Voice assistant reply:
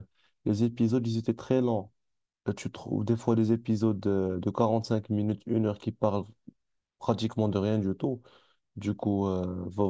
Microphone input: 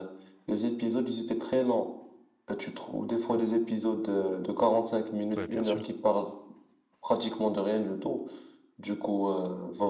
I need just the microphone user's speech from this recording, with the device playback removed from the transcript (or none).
Ouais, bien sûr.